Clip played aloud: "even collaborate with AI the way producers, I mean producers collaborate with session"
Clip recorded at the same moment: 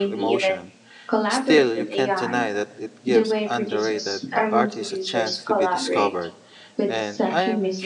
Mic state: both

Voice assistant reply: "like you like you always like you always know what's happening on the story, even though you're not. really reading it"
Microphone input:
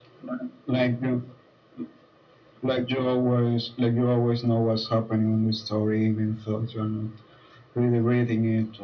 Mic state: echo only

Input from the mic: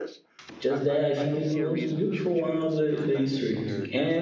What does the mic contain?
both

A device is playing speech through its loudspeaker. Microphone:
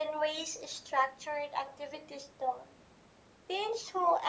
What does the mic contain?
echo only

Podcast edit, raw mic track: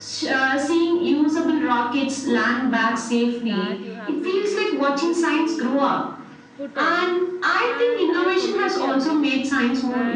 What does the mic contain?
both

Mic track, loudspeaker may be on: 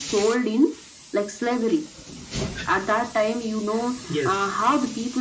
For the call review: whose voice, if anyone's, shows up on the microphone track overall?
both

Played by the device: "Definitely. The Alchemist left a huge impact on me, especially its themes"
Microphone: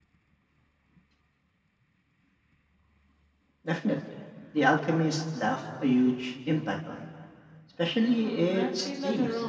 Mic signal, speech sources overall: both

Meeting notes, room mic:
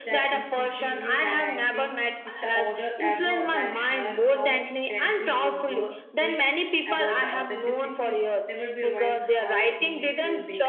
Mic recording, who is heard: both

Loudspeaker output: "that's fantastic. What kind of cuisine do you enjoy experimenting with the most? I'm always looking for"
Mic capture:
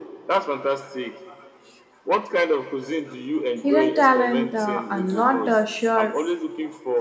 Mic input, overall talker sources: both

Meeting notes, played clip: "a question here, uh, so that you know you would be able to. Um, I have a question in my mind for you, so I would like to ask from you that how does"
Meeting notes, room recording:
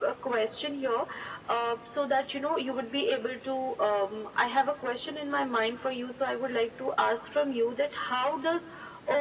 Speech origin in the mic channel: echo only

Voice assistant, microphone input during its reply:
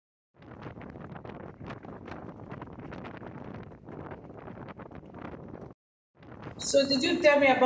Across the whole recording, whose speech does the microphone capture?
user only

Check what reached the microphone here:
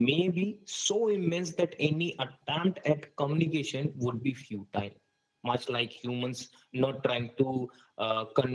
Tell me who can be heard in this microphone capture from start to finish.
echo only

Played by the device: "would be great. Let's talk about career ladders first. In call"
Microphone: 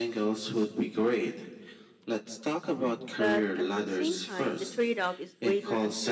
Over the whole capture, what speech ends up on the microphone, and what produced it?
both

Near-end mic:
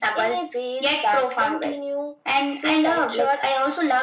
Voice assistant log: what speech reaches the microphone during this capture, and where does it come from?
echo only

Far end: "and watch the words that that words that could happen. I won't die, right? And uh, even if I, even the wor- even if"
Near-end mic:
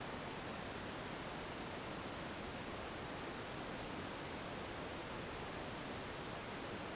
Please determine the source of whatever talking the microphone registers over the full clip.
neither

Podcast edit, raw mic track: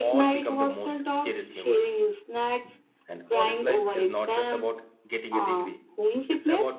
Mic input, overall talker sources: both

